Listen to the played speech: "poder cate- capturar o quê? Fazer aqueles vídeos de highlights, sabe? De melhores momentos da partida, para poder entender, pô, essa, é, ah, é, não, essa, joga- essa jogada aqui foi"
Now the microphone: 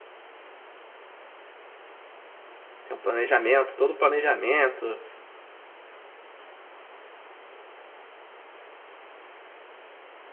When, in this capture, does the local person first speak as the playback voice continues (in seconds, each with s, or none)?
2.8 s